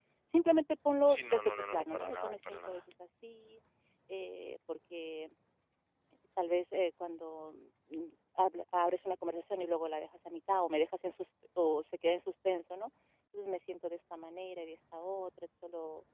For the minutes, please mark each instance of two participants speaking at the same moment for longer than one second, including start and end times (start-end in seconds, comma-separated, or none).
1.1-2.8